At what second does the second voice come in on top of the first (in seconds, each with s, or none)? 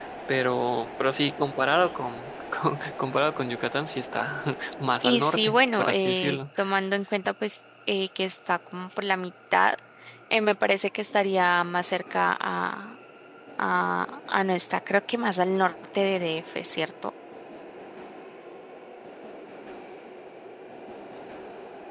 5.0 s